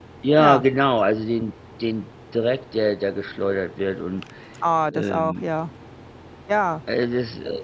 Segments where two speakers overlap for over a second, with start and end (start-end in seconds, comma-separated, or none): none